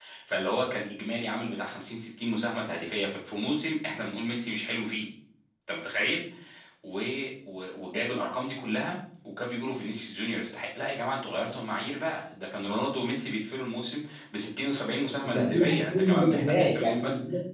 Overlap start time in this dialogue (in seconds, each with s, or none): 15.2 s